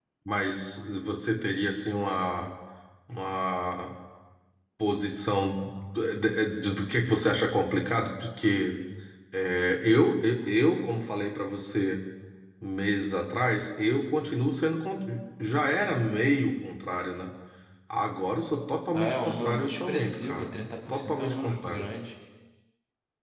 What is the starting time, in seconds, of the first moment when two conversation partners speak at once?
18.9 s

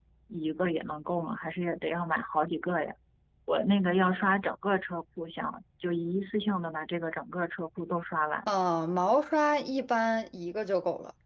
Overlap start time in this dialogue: none

